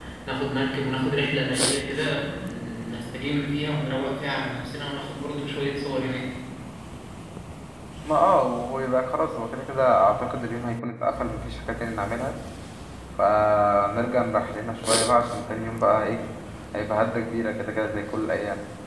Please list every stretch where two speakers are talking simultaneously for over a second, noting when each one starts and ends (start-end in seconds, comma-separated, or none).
none